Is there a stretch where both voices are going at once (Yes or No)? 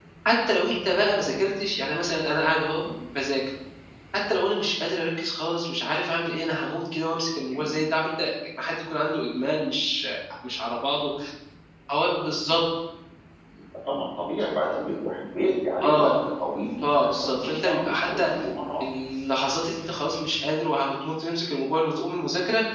Yes